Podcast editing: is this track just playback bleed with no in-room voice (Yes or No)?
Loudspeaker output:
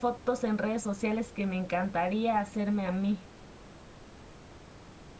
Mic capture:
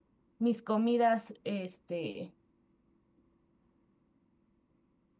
No